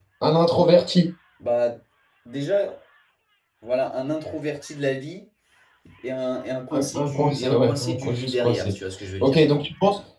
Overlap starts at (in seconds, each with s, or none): 6.7 s